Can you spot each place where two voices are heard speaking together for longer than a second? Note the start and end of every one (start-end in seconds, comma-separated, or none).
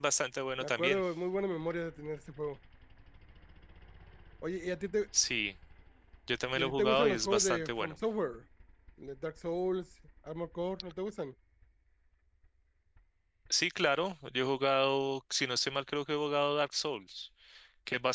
6.5-7.9